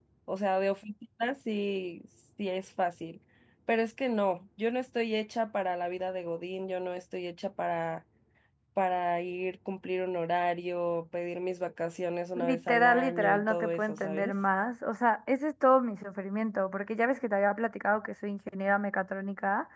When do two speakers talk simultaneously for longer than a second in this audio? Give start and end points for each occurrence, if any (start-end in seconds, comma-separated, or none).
12.3-14.3